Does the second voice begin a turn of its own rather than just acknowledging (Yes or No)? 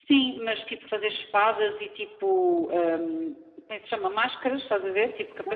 Yes